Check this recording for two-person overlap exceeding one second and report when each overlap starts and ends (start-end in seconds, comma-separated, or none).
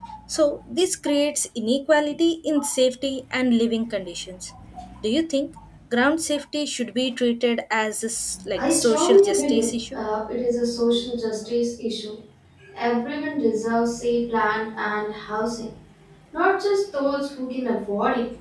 8.6-10.0